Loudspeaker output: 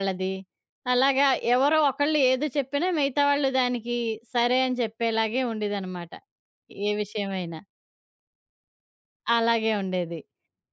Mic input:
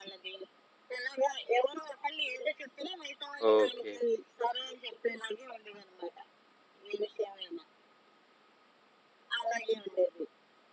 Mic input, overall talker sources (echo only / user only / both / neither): both